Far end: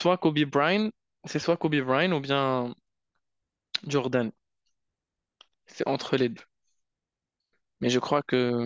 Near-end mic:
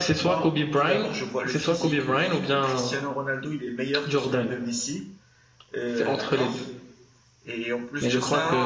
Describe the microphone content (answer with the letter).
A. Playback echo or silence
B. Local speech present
B